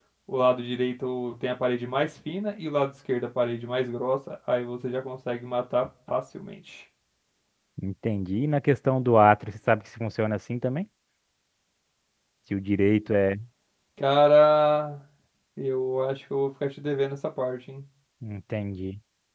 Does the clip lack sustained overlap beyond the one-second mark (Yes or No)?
Yes